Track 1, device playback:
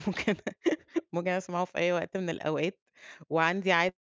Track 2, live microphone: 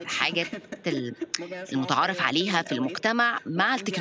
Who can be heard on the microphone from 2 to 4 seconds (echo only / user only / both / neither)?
both